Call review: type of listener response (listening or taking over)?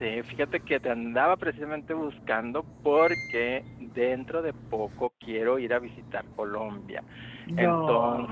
listening